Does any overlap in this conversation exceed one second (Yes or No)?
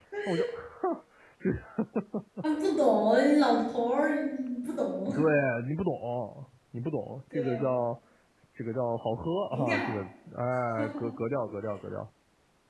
No